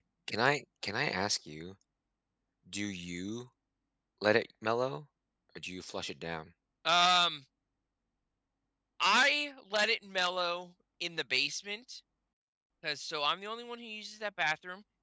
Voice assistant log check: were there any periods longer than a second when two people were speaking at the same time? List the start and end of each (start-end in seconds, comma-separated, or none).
none